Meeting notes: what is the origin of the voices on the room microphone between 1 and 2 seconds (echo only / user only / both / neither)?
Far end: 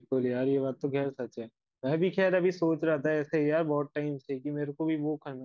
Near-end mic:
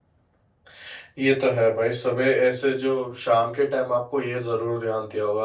user only